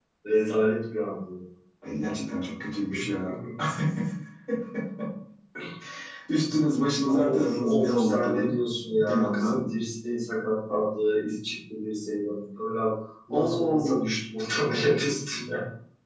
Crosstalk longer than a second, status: present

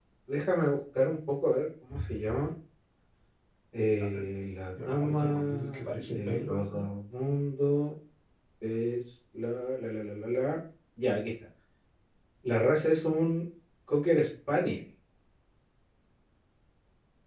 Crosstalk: present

